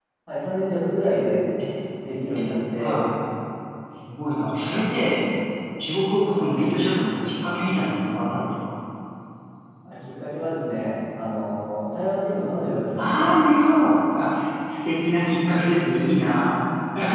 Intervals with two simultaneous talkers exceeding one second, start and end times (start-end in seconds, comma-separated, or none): none